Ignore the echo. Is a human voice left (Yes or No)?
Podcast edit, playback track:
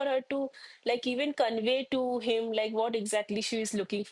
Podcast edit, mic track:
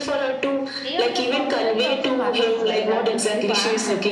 Yes